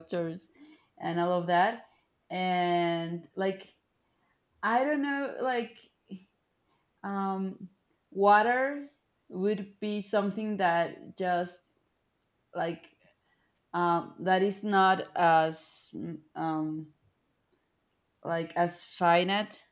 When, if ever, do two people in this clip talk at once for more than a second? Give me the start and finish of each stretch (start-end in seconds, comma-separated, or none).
none